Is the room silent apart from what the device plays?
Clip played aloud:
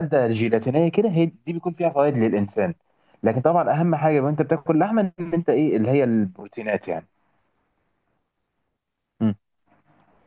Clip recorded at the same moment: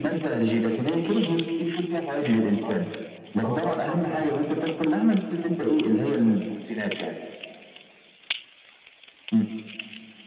No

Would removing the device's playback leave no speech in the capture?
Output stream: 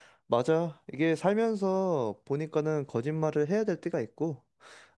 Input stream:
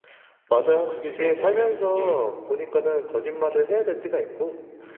No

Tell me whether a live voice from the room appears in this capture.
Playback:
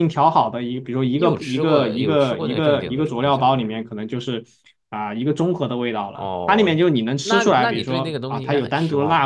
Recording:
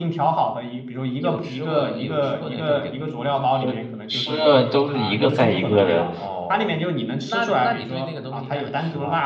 Yes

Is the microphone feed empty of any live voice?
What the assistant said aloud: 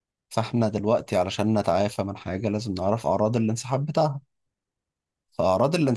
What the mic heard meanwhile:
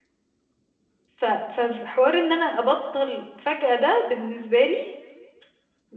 No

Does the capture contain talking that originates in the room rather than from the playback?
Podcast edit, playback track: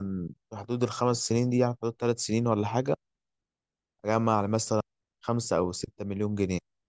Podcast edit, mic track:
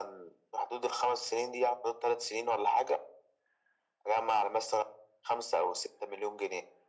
No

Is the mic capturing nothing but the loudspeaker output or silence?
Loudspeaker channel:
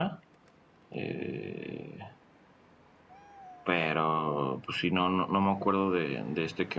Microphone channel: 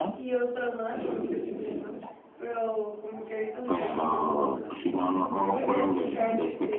No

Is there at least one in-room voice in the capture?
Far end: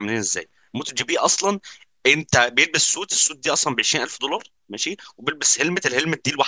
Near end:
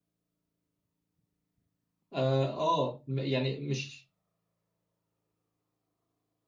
Yes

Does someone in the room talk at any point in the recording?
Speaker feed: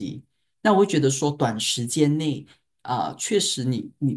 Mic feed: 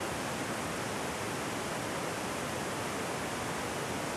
No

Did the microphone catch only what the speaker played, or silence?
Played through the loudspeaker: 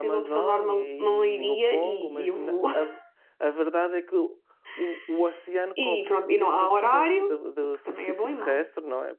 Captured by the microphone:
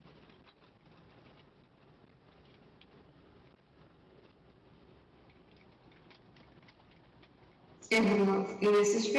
No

